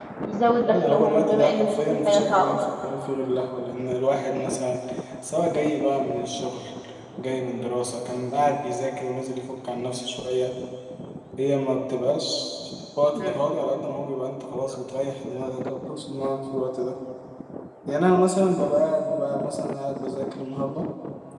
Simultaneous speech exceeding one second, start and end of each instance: 0.6-2.6

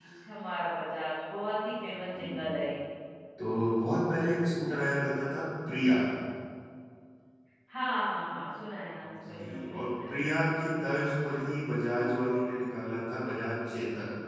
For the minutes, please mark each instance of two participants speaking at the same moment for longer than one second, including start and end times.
9.3-10.5

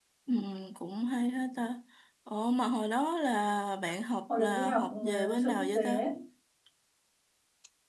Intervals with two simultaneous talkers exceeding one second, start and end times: 4.4-6.0

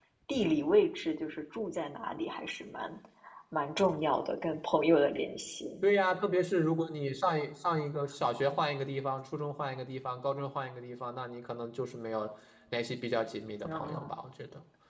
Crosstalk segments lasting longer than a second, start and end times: none

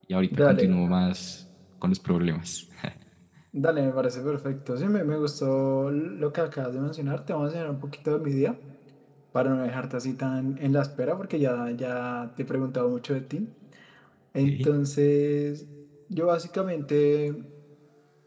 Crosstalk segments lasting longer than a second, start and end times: none

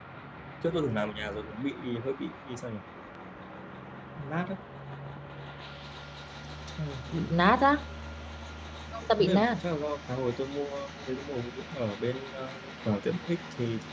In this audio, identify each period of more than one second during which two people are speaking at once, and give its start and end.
none

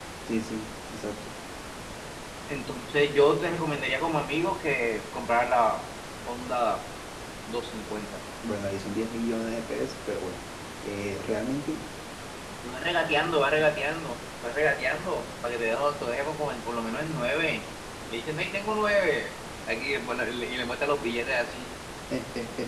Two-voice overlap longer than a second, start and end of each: none

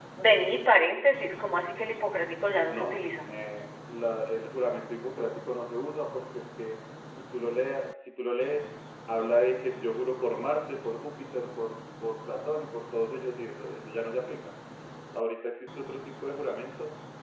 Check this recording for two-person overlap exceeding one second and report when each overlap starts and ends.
none

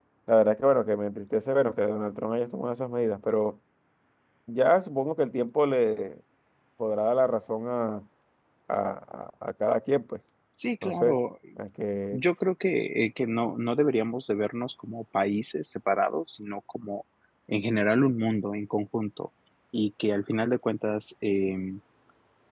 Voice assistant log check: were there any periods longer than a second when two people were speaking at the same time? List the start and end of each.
none

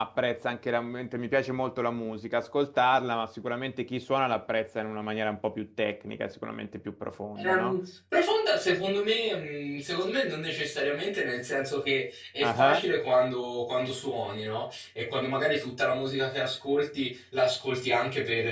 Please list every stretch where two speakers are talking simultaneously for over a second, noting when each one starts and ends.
none

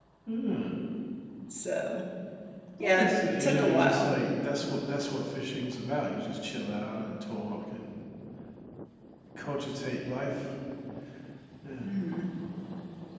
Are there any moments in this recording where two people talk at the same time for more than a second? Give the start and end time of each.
2.8-4.1

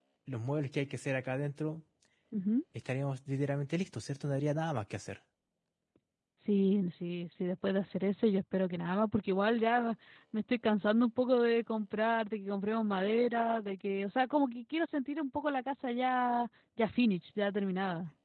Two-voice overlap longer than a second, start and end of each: none

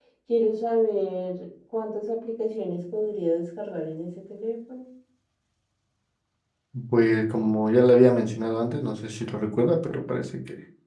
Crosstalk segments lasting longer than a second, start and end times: none

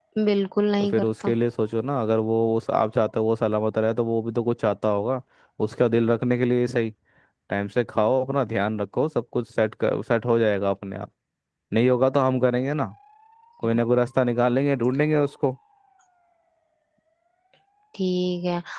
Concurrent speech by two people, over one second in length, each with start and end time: none

